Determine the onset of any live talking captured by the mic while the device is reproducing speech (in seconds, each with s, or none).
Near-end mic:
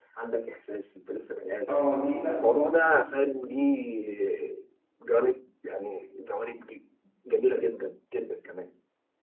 1.7 s